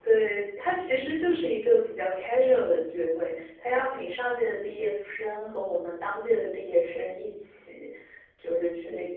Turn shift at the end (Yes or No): No